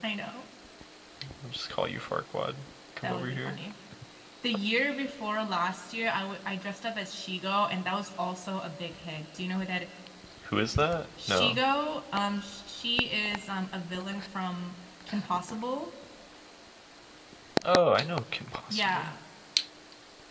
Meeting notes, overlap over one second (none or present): none